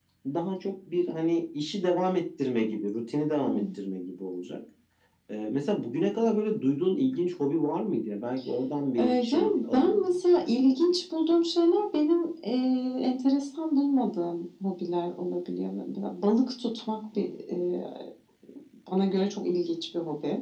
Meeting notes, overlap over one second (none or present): present